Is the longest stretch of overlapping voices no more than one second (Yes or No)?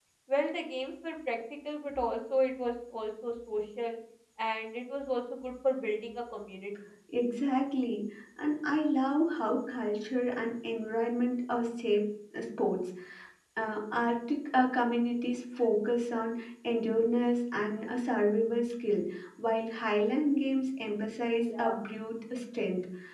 Yes